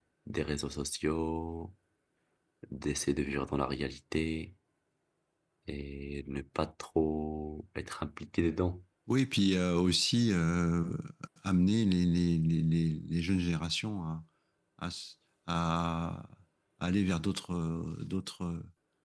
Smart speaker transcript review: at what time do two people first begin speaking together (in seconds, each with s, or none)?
none